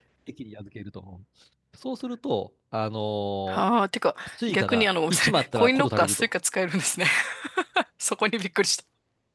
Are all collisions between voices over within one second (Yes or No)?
No